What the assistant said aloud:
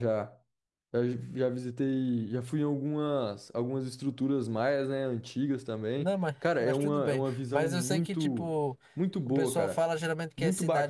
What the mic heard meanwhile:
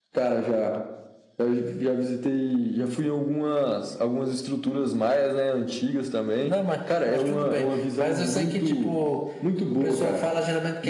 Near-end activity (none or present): none